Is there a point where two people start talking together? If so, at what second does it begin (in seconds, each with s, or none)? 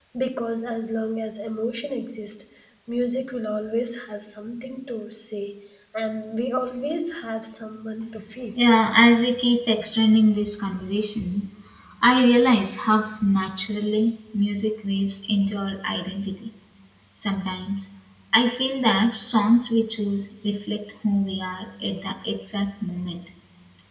none